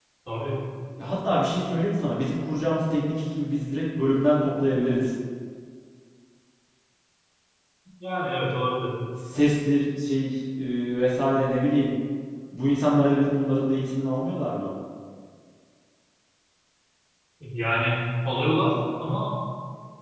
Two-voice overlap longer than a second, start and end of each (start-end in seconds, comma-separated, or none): none